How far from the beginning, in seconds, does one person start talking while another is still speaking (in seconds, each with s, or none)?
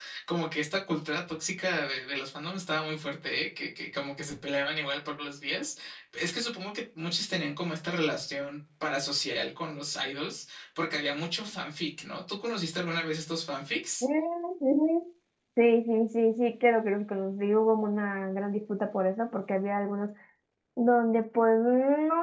none